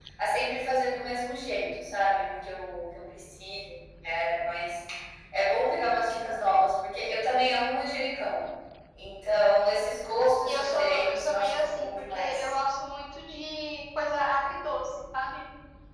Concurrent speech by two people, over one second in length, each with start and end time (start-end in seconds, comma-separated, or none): 10.4-12.5